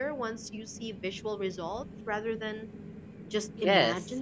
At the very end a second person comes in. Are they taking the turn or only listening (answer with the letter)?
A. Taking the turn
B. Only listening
A